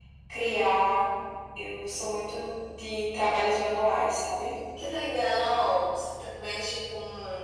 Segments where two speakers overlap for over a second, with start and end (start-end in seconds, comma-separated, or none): none